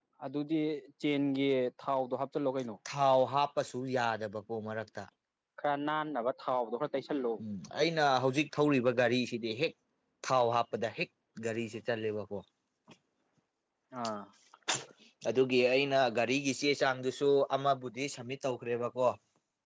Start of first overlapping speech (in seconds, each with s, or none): none